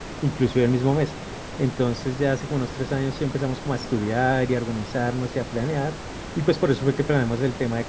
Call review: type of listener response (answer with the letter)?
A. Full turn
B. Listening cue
B